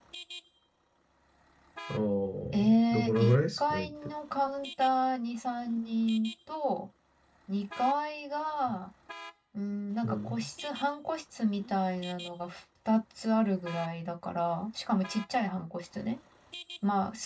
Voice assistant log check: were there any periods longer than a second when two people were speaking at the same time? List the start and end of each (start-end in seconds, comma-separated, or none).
2.5-3.9